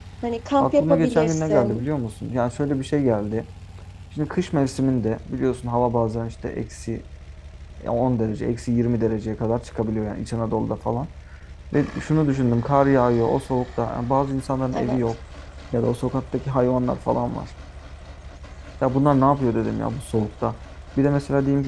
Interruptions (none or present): present